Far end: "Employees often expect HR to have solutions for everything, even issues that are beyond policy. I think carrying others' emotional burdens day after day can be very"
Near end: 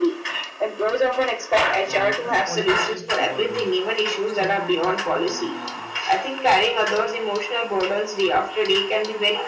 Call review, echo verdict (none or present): present